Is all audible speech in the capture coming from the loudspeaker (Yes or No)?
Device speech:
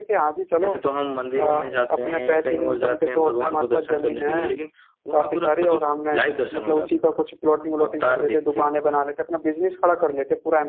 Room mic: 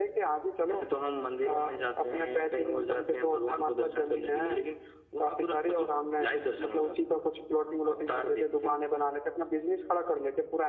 Yes